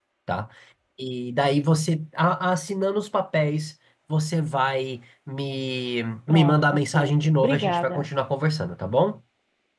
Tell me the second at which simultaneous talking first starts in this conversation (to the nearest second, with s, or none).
6 s